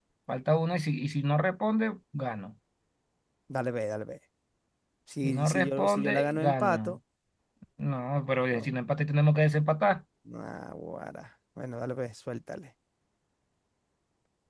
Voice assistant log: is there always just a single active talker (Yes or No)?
No